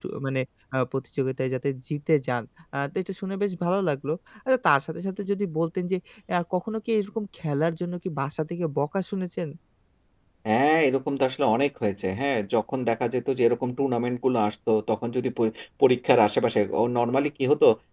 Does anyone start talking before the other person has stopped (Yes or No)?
No